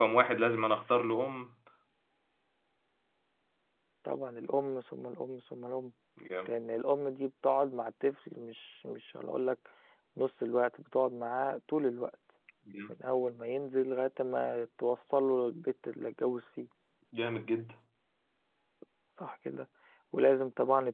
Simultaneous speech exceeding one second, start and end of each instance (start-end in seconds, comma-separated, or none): none